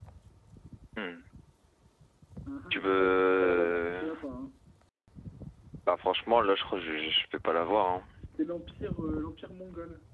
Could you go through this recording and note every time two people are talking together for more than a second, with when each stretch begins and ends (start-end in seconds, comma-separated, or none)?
2.7-4.1